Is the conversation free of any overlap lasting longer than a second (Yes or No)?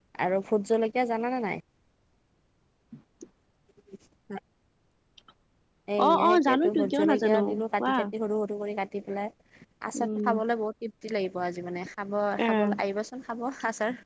No